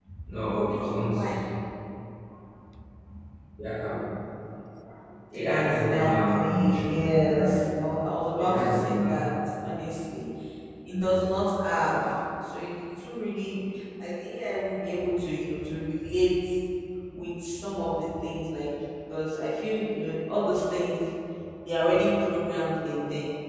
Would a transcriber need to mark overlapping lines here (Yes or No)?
Yes